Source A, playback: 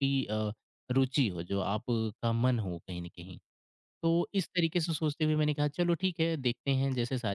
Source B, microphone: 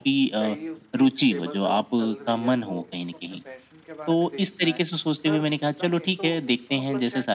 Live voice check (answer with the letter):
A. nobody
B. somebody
B